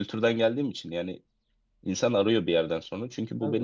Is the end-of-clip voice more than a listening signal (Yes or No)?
No